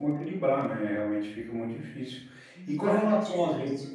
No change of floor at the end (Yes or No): No